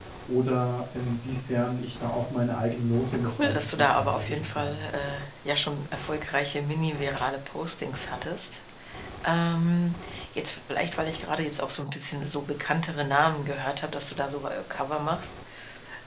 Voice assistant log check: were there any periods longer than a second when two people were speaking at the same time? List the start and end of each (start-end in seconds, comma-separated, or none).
3.1-4.9